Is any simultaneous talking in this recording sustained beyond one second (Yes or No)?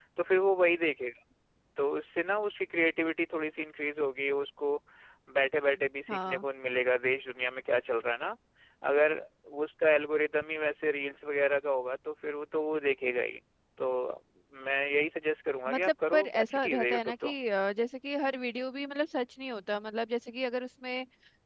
Yes